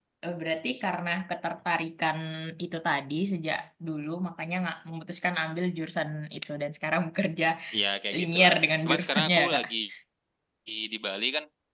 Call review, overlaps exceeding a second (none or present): present